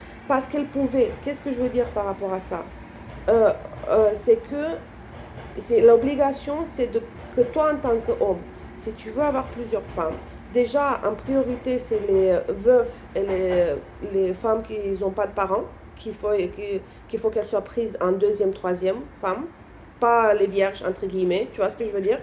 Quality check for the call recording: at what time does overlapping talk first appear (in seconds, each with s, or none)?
none